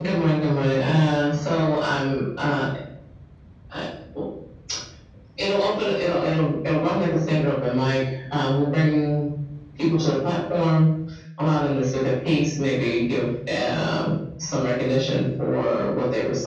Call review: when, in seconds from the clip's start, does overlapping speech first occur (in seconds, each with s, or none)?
none